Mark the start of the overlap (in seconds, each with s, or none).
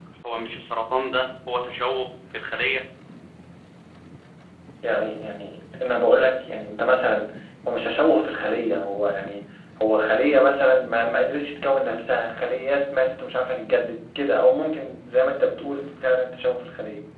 none